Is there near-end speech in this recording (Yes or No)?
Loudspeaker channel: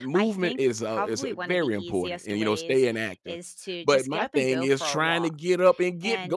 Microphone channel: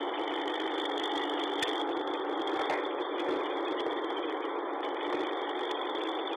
No